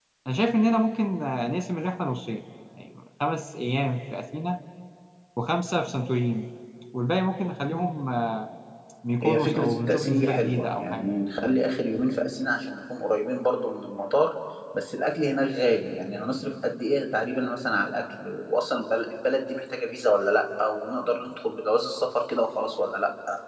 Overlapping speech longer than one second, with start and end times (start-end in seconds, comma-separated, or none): 9.2-11.1